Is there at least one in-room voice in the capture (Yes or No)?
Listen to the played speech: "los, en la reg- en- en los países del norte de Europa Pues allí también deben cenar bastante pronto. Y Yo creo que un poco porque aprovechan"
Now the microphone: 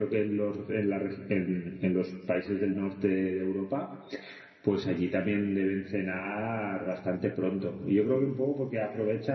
No